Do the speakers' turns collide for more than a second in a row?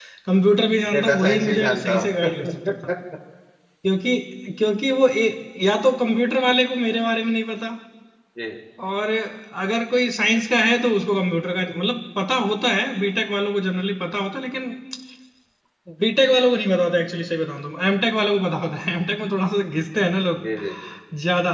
Yes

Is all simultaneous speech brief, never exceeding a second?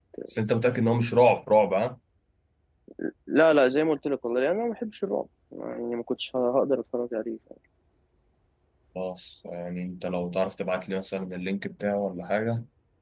Yes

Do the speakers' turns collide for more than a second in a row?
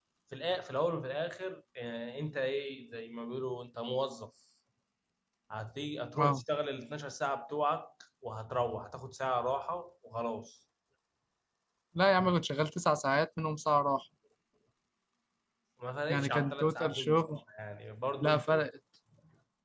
Yes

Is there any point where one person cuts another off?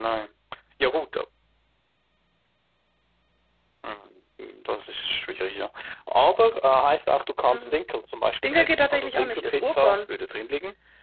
Yes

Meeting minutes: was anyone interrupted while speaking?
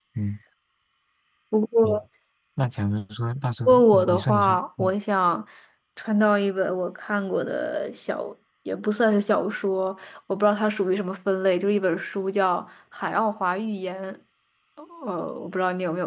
Yes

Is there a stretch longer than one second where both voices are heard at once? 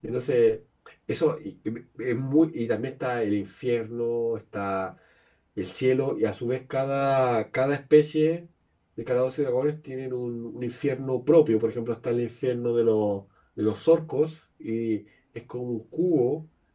No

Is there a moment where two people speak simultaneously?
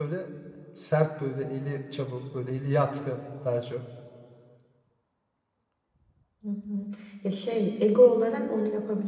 No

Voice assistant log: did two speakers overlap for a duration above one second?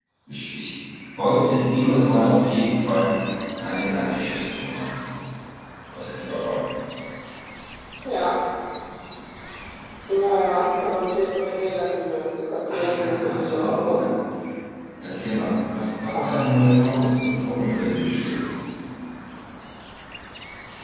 Yes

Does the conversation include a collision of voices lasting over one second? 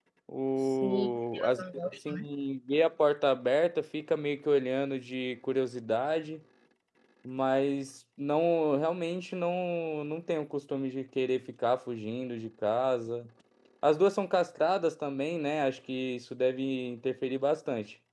Yes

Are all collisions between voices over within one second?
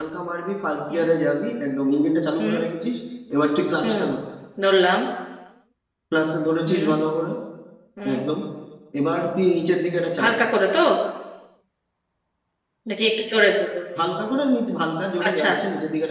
Yes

